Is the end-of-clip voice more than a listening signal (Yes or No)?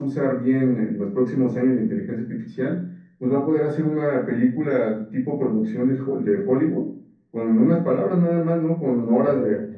No